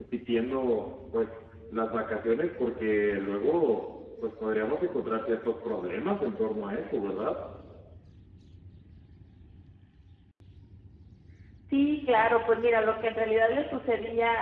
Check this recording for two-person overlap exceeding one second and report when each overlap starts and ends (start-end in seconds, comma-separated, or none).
none